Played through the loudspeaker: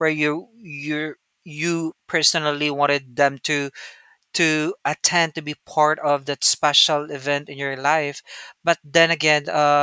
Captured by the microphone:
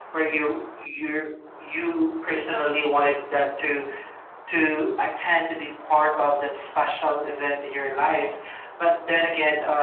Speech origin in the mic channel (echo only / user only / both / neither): echo only